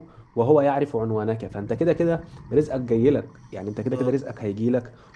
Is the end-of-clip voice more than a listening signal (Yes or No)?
No